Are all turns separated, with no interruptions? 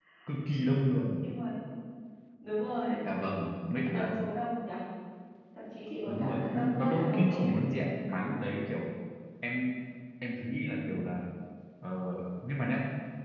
No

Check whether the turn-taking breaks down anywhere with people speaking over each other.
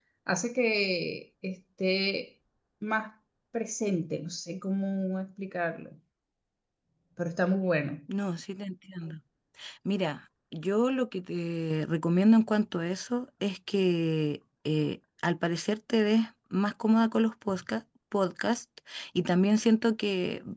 No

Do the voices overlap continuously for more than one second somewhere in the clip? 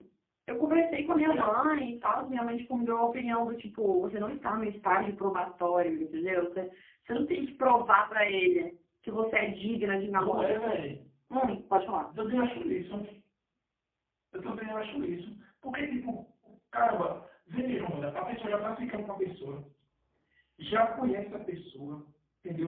No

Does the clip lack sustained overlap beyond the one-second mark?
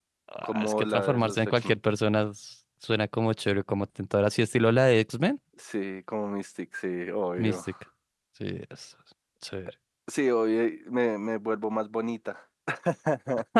No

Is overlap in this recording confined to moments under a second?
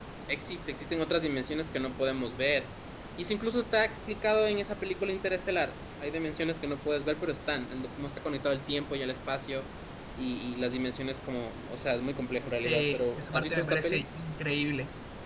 No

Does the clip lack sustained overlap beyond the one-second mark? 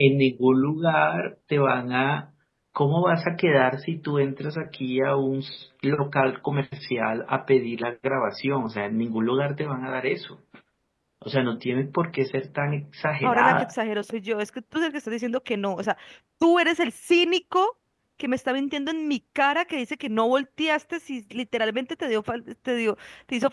Yes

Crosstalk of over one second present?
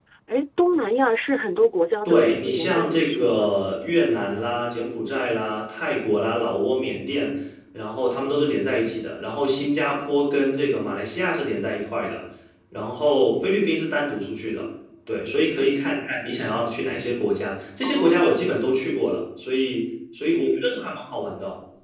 Yes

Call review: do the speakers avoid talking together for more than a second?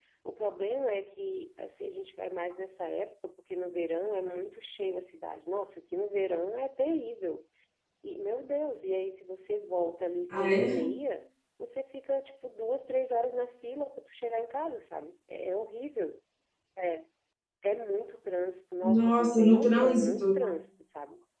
No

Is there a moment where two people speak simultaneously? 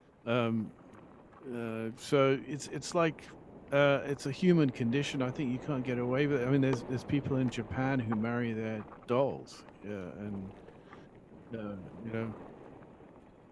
No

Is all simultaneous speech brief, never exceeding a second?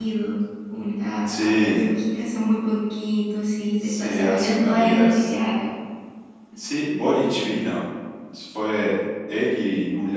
No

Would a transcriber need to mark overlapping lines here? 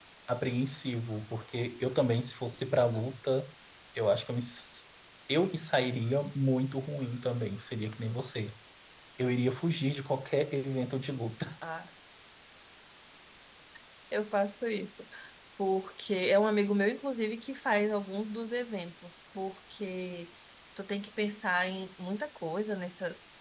No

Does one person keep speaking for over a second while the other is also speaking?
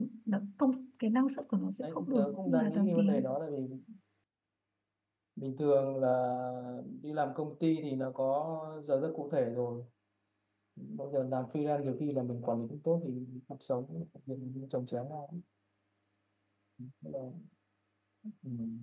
Yes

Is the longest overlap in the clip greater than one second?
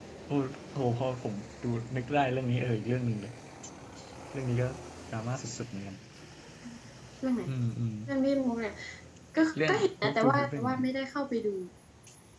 Yes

